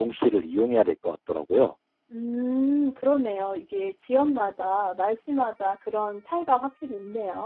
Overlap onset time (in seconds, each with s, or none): none